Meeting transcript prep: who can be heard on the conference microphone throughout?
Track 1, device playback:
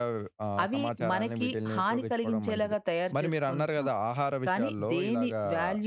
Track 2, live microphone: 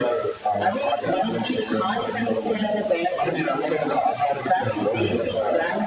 both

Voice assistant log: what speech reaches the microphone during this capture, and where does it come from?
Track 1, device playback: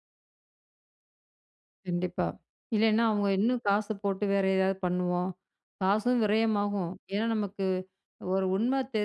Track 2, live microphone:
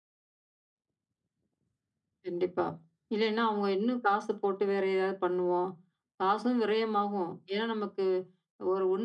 echo only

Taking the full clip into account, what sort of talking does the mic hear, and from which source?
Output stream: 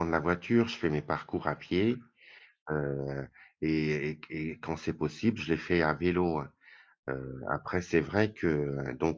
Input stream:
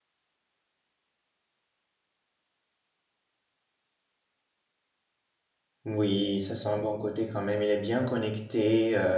user only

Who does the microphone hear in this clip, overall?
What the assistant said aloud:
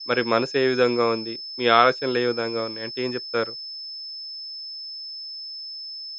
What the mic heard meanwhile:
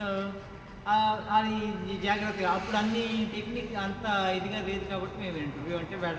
user only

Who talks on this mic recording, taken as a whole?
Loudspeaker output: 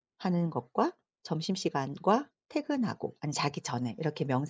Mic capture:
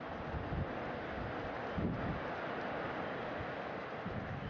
neither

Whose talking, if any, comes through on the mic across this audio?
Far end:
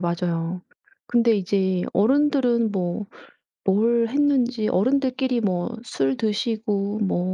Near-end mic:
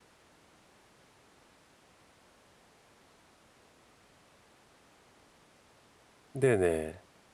user only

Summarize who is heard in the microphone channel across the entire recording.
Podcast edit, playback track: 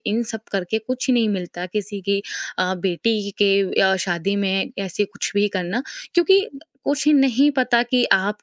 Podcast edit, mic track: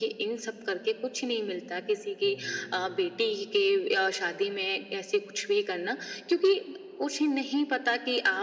both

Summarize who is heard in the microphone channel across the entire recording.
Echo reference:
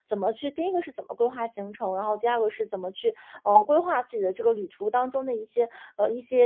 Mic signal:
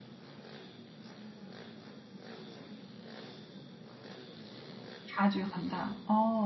user only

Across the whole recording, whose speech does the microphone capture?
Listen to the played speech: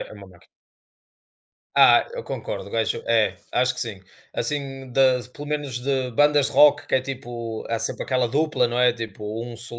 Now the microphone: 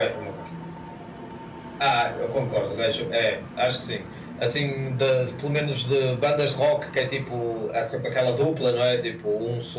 echo only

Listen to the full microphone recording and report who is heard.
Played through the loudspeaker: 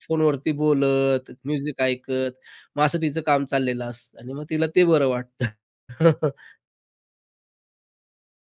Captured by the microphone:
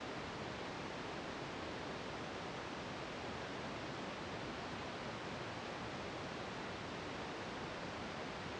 neither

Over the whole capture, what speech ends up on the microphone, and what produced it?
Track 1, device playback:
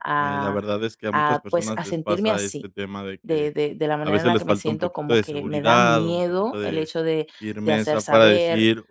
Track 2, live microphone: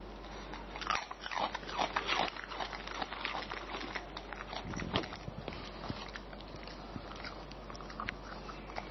neither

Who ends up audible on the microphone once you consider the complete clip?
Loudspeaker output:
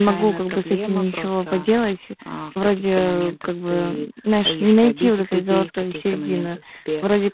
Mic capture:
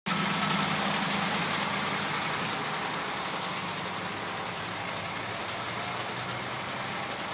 neither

